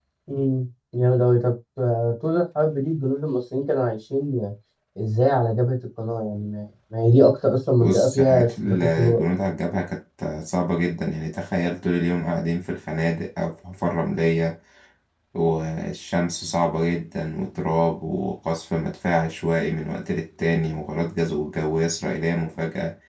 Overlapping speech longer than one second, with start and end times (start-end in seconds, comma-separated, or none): 7.8-9.2